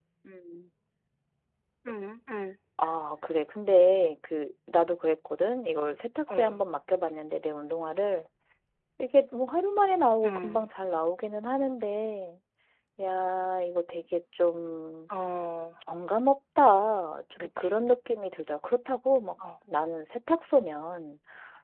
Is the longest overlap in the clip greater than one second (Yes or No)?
No